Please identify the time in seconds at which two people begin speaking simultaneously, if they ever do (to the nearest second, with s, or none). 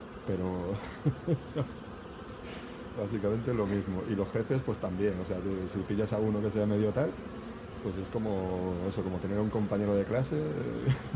none